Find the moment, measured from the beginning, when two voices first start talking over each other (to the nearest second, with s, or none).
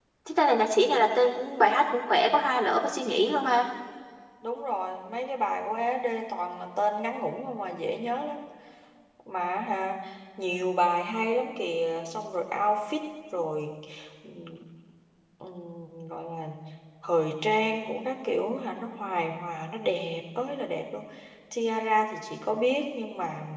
none